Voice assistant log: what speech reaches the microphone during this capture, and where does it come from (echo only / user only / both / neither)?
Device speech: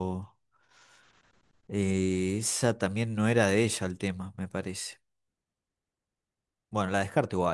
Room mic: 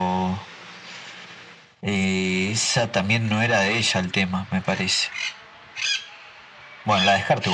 echo only